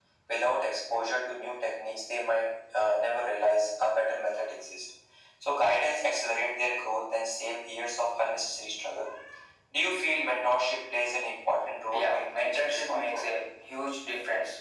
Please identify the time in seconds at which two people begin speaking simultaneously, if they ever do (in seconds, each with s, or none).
11.9 s